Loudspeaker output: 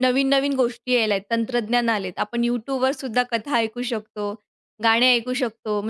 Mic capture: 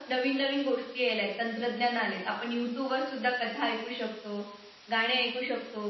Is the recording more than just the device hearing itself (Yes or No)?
No